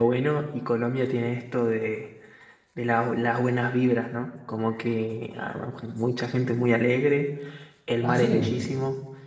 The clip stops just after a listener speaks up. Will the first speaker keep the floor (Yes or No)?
Yes